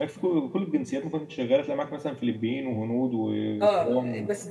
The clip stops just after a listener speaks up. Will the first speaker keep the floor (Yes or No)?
No